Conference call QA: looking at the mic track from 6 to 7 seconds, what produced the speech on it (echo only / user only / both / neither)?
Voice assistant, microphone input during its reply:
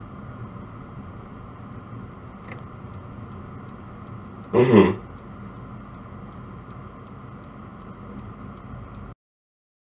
neither